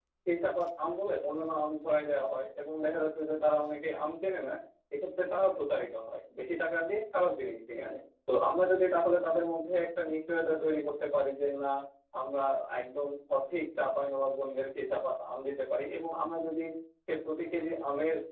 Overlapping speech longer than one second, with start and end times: none

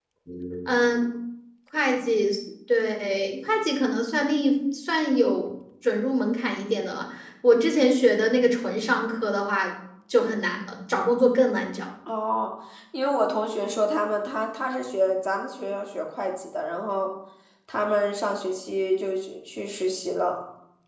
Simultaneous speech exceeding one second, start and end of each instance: none

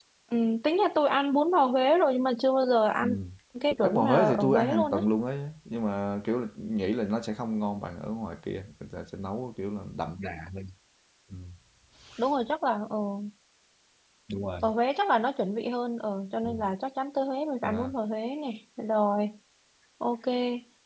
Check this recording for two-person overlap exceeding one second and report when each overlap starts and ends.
3.8-5.0

